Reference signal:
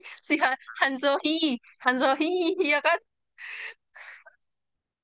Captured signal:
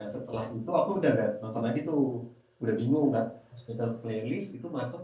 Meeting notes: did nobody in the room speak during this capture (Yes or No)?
No